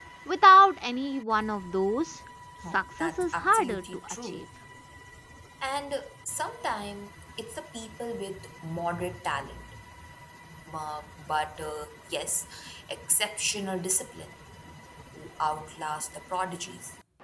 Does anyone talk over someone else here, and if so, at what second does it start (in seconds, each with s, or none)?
2.6 s